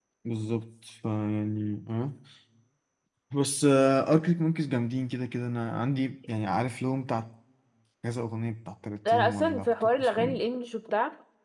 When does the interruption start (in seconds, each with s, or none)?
9.0 s